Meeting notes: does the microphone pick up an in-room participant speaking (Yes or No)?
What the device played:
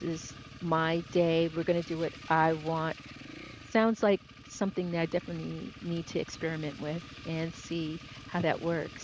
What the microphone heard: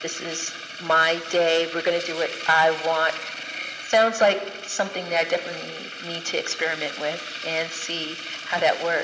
No